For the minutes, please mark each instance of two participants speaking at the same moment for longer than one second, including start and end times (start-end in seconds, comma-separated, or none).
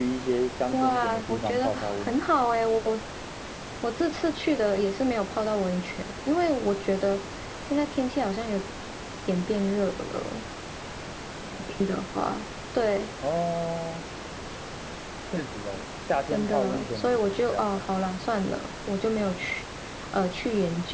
0.7-2.2, 16.3-17.8